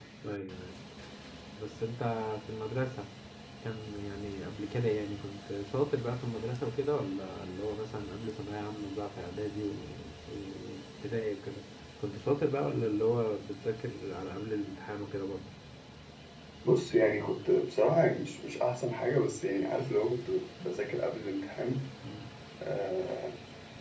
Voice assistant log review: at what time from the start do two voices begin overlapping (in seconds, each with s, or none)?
none